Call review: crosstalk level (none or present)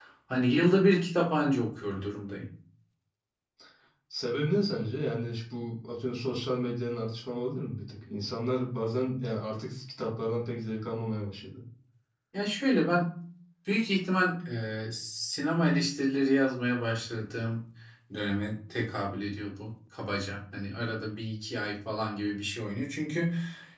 none